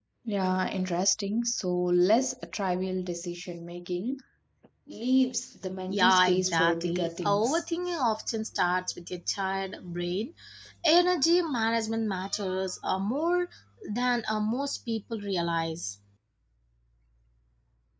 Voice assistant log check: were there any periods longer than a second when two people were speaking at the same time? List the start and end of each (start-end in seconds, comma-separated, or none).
5.9-7.6